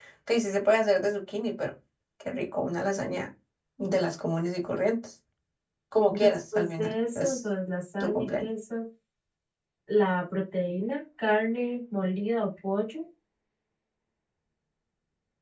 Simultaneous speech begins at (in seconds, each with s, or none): 6.1 s